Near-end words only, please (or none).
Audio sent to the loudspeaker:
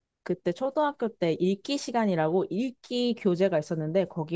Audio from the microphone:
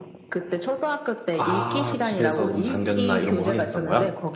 아 집에서 문 잠겼나 이런 거 확인했던 거야?